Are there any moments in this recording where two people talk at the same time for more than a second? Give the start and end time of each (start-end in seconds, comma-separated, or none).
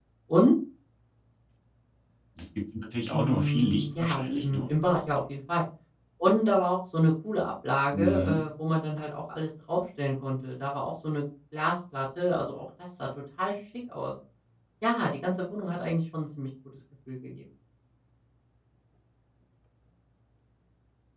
3.1-4.7